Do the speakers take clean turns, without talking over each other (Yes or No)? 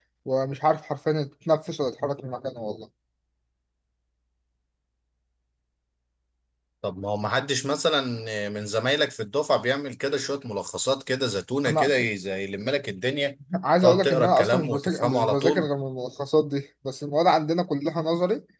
No